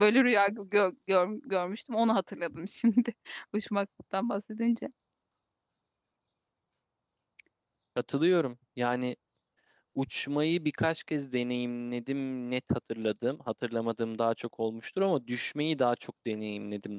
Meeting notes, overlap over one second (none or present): none